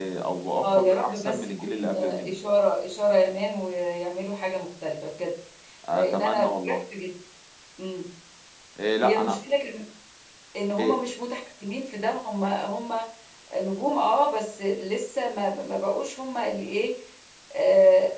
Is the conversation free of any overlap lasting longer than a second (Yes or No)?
No